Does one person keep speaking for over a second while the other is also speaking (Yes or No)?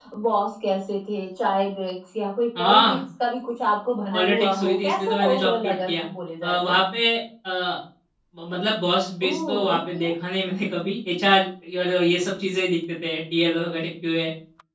Yes